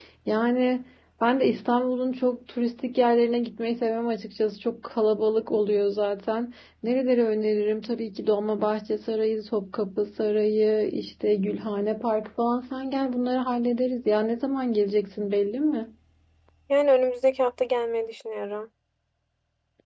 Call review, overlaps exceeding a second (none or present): none